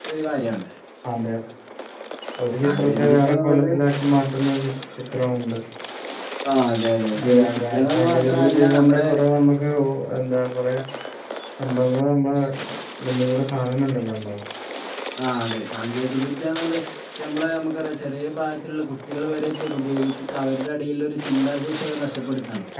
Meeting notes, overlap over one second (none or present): present